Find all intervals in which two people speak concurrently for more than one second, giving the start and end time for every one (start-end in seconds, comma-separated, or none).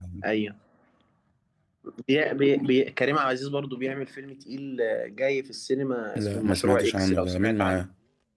6.2-7.8